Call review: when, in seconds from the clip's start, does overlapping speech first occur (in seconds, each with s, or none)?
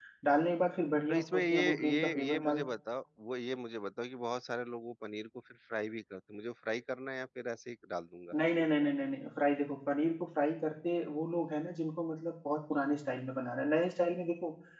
1.1 s